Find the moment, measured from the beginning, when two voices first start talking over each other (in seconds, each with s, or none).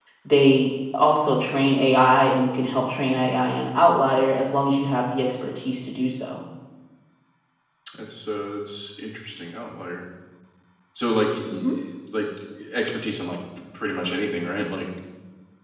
none